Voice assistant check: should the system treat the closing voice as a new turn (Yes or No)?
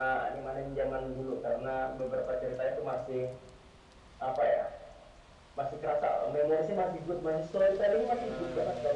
No